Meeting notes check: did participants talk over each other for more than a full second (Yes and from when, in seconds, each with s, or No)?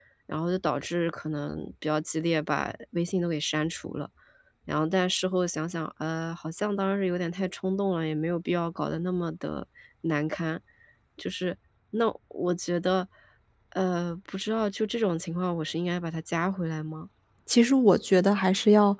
No